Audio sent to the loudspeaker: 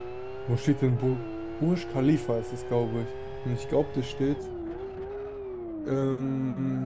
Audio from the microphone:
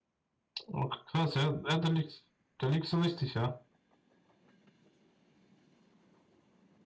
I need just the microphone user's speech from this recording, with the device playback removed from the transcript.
Okay, krass, ja, ja, da liegst, da liegst du richtig, ja.

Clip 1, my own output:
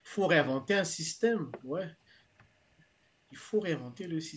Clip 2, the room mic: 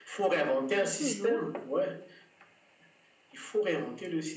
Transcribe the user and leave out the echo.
Dis toujours.

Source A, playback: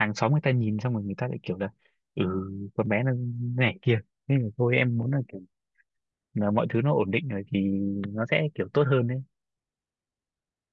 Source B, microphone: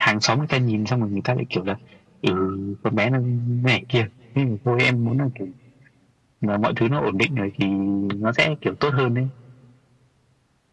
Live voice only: none

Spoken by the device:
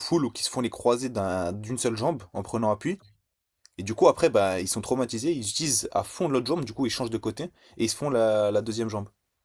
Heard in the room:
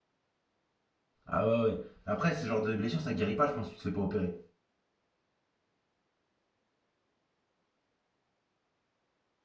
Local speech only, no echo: Ah ouais, ouais. Après, ce genre de blessure, ça guérit pas, je pense, si tu te fais pas opérer.

